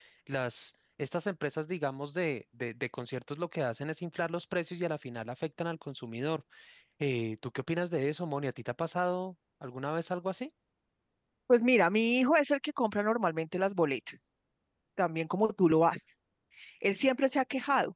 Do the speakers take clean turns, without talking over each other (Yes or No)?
Yes